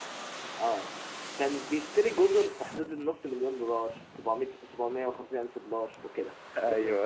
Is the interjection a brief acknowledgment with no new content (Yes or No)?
Yes